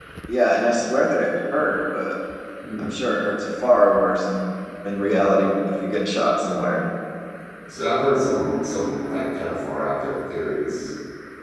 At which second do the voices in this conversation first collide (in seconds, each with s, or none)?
none